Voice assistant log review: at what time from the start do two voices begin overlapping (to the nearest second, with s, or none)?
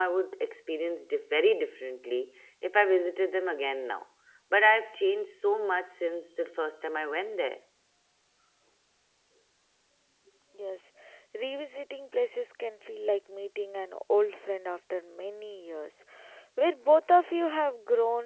none